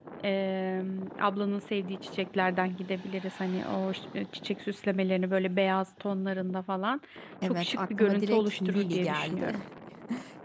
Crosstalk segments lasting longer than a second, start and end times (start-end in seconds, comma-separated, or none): 7.4-9.6